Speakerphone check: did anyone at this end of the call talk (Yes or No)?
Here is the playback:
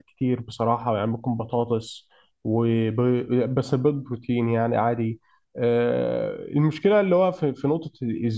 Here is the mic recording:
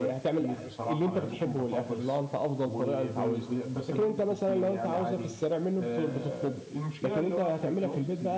Yes